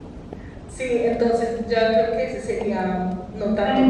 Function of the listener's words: taking over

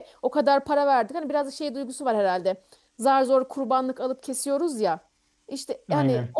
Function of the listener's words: listening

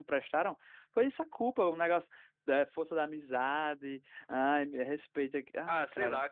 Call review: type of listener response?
taking over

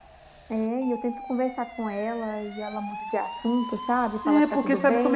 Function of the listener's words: taking over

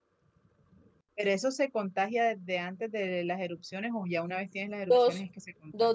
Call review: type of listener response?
taking over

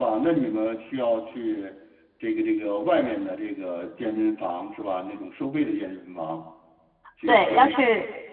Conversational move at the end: taking over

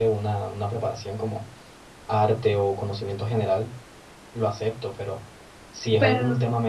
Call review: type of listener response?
listening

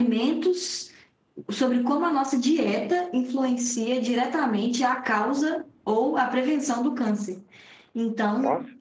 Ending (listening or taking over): listening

